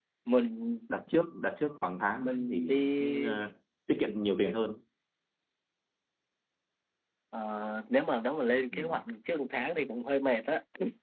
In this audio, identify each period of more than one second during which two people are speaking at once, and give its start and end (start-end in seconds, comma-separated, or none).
2.1-3.4